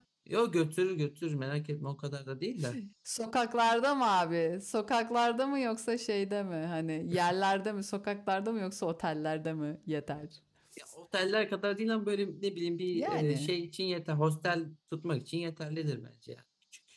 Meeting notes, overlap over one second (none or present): none